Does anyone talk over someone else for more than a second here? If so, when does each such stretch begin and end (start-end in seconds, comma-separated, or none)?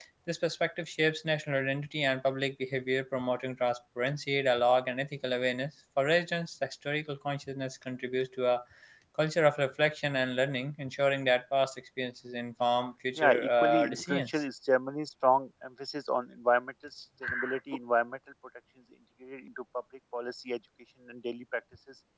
13.2-14.4